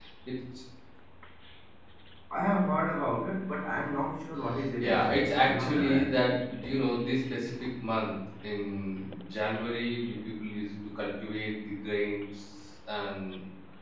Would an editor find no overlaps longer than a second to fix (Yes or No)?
No